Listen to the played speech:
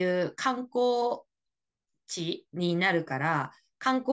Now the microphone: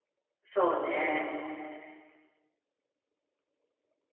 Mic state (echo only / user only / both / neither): user only